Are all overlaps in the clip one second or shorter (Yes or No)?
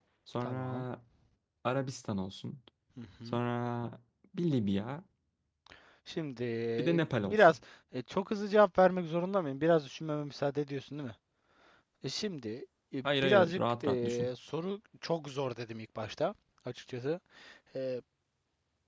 No